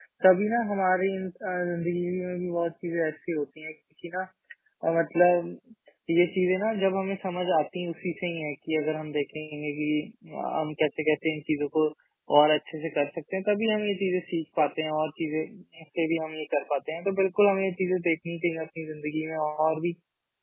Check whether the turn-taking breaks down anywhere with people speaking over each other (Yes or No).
No